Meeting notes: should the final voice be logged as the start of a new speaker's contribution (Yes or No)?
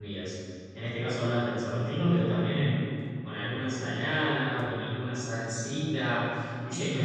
No